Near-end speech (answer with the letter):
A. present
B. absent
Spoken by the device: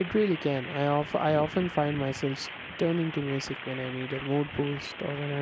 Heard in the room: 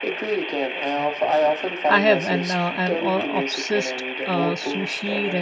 A